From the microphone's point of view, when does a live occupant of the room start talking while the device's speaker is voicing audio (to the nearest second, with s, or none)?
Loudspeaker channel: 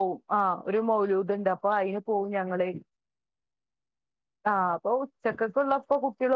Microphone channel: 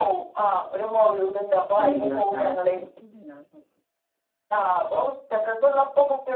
2 s